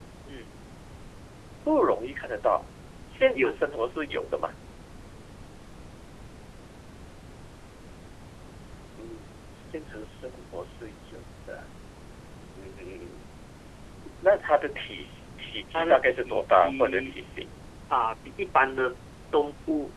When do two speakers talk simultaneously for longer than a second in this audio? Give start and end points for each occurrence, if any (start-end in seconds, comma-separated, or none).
15.7-17.2